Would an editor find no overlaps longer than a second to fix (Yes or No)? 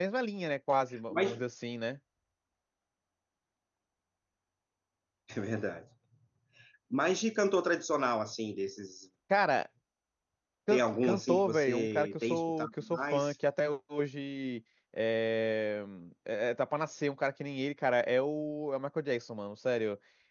No